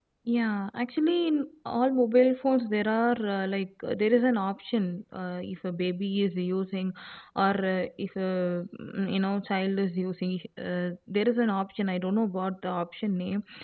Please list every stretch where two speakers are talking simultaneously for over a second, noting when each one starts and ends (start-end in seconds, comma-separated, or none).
none